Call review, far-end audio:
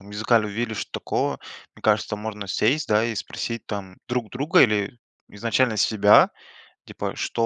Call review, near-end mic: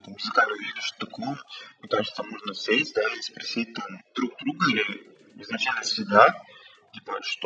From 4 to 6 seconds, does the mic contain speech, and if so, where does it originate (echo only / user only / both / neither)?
echo only